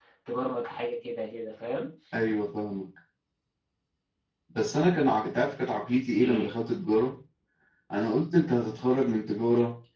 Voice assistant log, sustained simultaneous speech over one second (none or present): none